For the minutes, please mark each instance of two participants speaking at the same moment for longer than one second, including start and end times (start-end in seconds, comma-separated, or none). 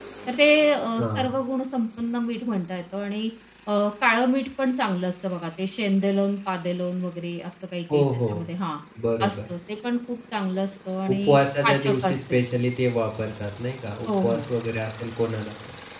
11.1-12.4